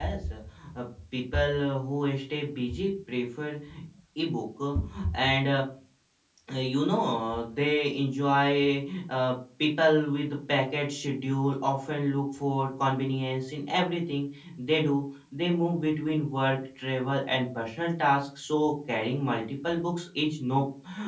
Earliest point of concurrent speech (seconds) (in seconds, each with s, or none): none